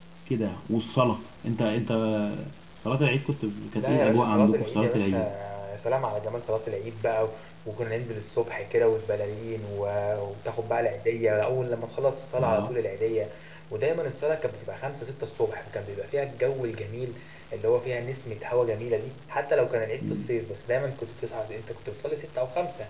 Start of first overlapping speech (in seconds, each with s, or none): 3.8 s